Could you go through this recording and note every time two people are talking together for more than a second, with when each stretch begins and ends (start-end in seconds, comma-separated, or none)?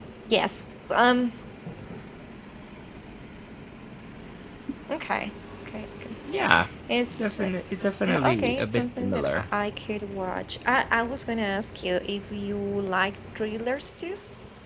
8.1-9.4